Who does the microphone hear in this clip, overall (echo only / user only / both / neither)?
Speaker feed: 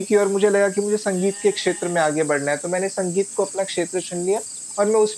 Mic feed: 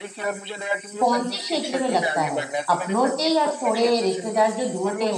both